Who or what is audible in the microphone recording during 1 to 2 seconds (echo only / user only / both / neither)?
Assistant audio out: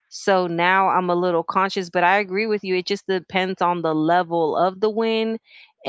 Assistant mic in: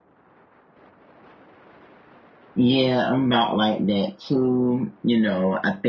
neither